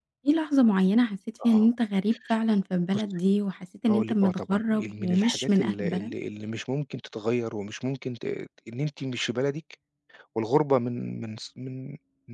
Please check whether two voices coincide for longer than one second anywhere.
Yes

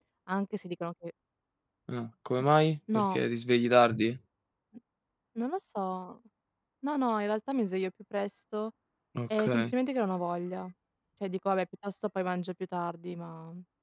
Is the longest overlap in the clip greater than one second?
No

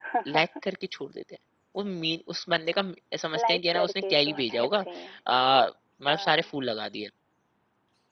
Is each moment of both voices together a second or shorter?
No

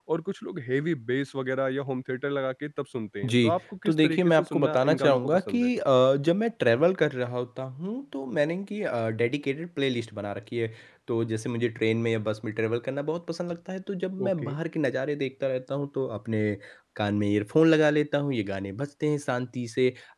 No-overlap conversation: No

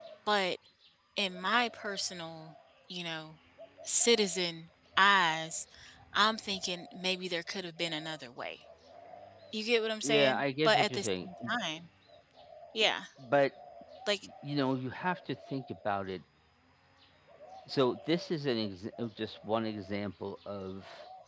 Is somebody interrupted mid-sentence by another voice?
Yes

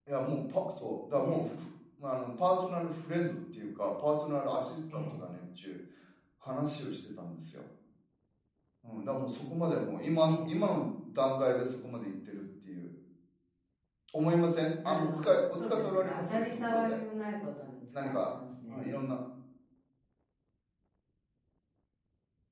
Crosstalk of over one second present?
Yes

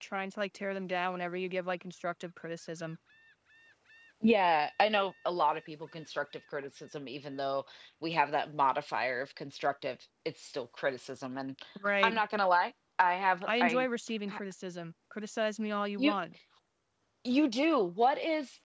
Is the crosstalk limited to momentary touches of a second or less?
Yes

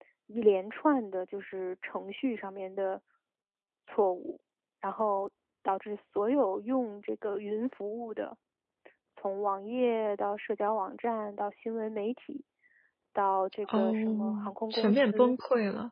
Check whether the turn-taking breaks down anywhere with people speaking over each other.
Yes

